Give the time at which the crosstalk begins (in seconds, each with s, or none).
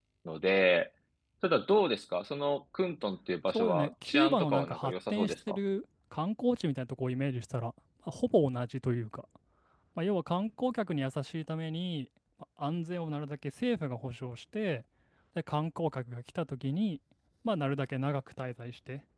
3.5 s